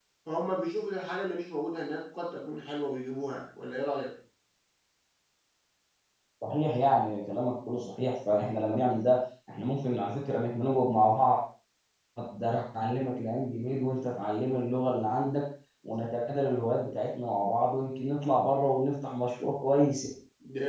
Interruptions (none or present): none